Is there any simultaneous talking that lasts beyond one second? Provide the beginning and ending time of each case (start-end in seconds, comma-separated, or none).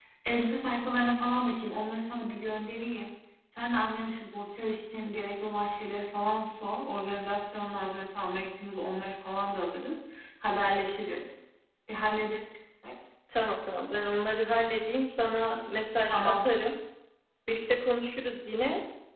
none